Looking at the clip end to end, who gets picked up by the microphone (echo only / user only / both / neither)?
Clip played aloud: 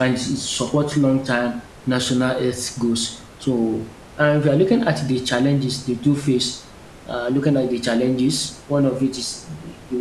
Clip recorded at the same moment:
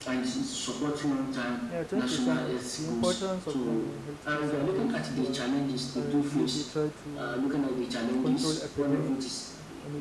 both